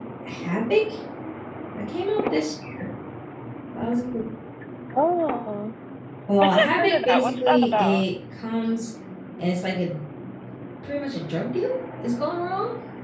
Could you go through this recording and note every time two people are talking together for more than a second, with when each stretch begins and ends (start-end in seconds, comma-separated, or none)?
6.4-8.0